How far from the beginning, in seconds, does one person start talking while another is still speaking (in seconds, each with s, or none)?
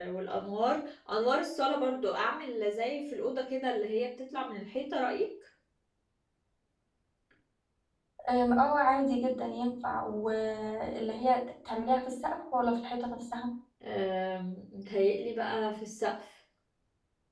none